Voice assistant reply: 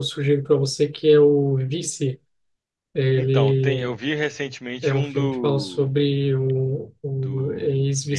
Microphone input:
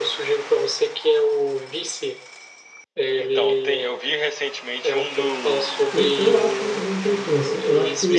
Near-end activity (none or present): present